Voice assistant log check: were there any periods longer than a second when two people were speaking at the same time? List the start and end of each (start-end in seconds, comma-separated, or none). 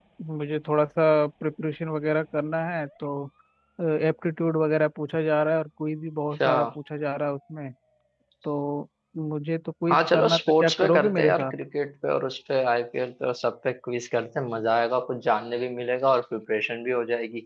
9.9-11.5